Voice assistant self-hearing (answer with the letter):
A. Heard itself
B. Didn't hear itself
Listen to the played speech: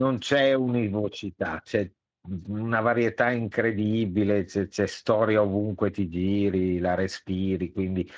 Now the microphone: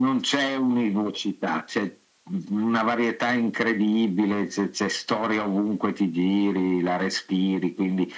A